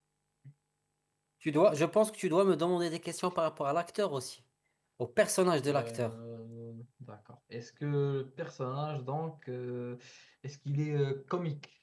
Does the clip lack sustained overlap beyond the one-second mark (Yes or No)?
Yes